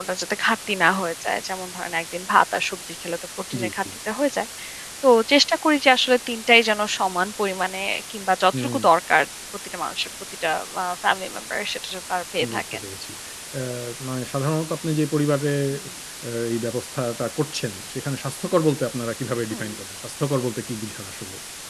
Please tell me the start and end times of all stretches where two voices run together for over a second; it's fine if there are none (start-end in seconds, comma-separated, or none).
none